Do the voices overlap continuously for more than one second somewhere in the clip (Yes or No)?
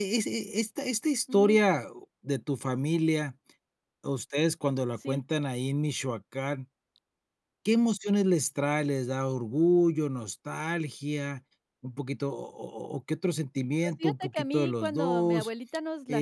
Yes